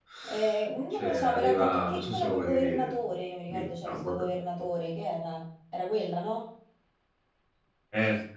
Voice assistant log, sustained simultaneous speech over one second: present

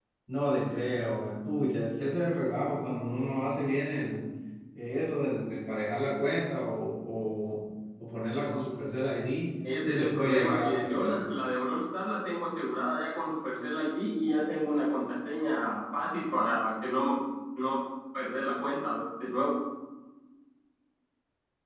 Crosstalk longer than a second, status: present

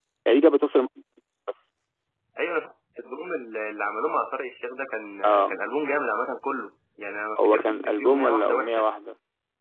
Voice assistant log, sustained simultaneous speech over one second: present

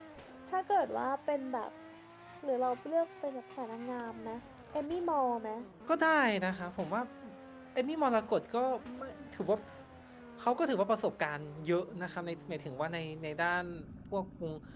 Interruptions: none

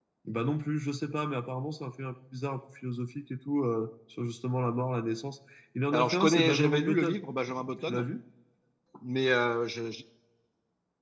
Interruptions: present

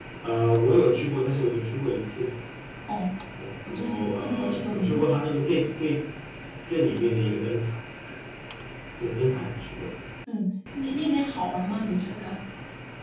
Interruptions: present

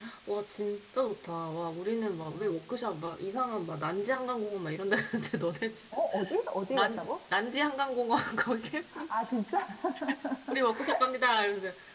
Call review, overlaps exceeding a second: none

